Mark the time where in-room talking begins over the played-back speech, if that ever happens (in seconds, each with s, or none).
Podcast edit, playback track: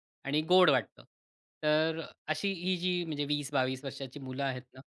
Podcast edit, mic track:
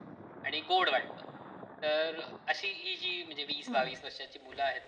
3.6 s